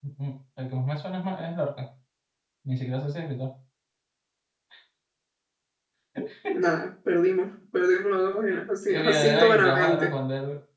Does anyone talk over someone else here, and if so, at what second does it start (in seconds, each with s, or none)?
8.9 s